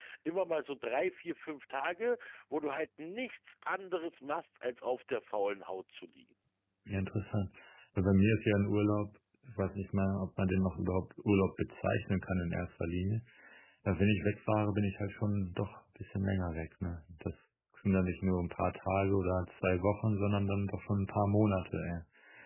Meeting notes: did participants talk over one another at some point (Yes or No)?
No